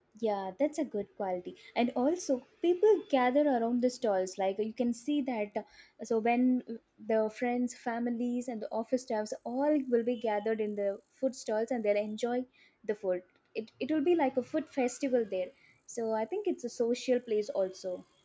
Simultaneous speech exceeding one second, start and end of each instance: none

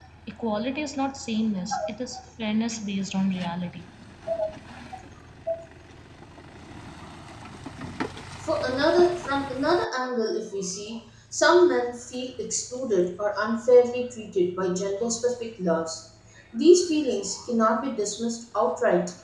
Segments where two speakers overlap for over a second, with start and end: none

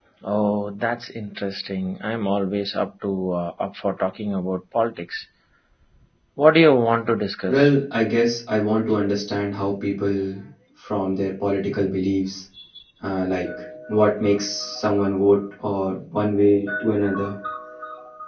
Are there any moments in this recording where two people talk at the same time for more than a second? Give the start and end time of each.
none

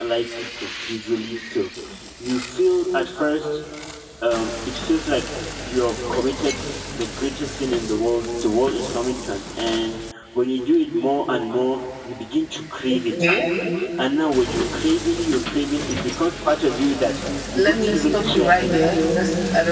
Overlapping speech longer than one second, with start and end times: 17.6-19.0

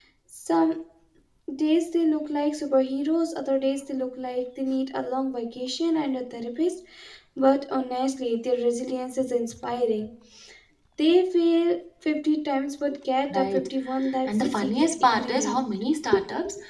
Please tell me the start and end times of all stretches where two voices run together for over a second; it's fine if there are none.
14.3-15.7

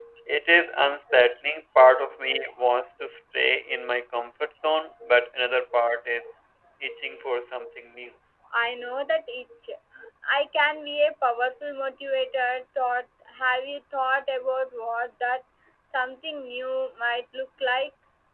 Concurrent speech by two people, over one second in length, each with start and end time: none

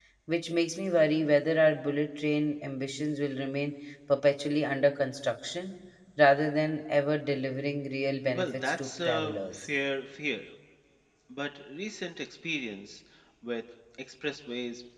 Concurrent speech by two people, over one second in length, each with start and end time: 8.3-9.7

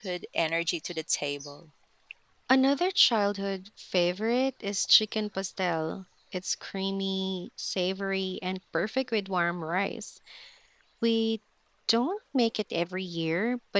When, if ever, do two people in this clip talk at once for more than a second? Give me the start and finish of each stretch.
none

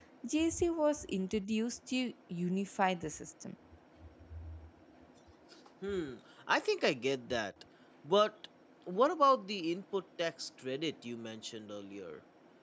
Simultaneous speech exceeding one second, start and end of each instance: none

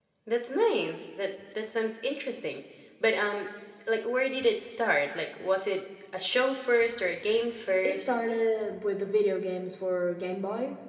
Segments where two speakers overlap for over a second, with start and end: none

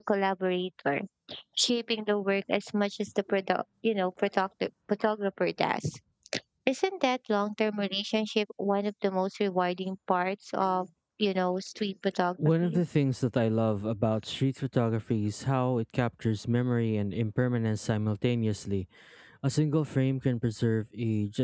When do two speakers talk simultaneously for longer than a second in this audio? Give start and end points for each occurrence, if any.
none

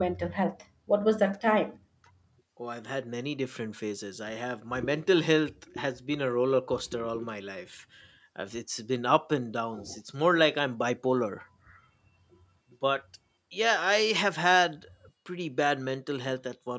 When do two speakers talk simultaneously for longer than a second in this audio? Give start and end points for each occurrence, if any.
none

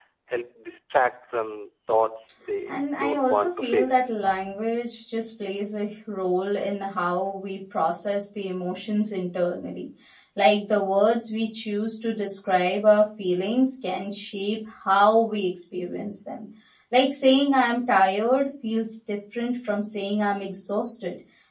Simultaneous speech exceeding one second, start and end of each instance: 2.7-4.0

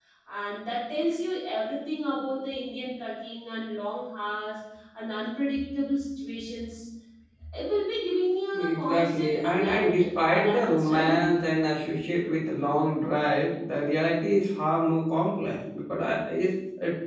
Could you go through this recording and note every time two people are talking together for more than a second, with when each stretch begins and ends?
8.5-11.3

